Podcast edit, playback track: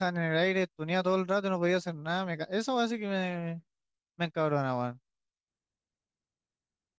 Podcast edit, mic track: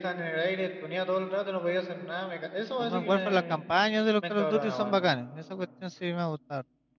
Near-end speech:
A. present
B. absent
A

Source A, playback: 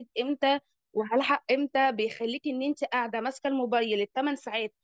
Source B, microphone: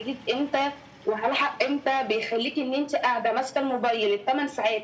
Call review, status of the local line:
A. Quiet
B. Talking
A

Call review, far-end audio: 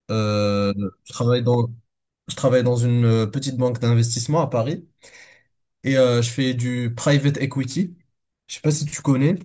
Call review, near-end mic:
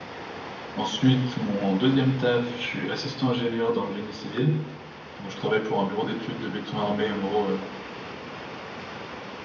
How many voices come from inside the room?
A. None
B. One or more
B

